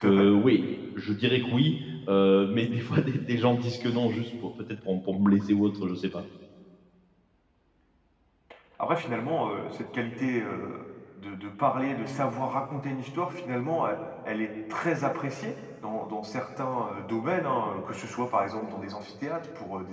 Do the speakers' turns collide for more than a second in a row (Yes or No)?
No